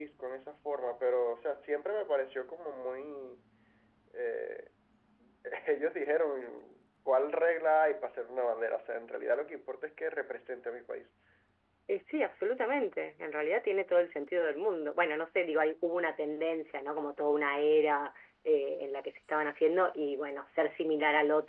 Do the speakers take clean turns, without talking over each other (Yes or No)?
Yes